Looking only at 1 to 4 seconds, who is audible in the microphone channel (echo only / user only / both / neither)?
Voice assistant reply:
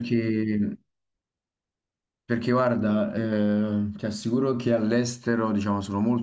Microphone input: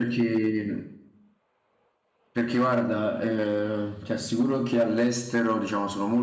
echo only